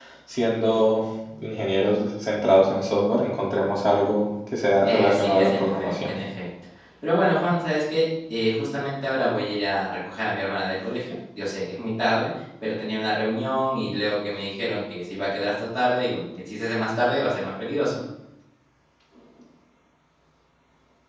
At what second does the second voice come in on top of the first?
4.8 s

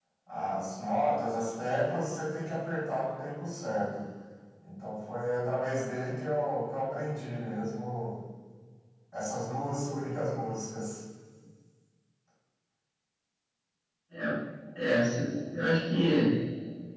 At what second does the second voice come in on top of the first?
none

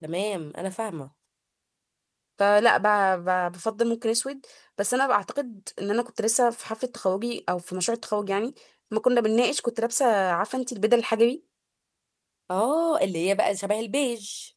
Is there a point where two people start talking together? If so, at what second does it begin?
none

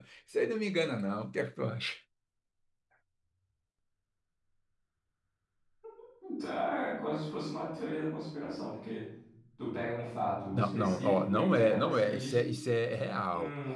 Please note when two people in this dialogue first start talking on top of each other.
10.5 s

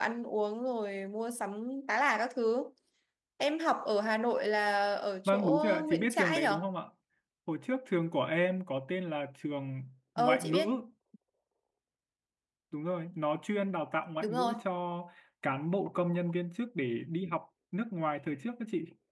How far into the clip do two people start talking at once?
5.2 s

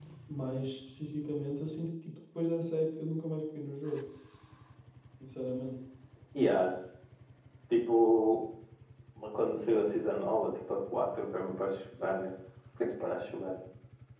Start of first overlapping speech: none

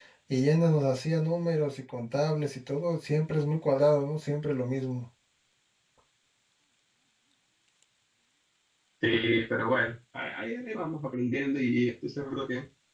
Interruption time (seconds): none

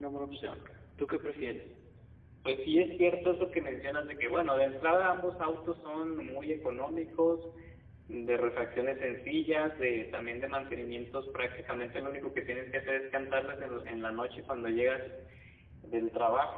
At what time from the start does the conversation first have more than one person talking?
none

